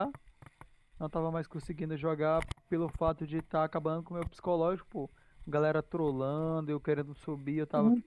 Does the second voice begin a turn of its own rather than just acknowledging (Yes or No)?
Yes